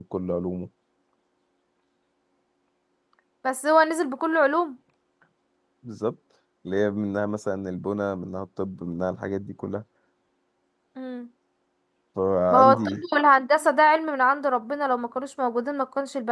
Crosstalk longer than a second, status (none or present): none